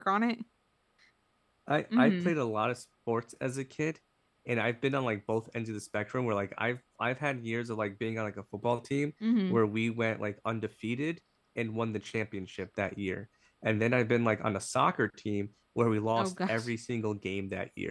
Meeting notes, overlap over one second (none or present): none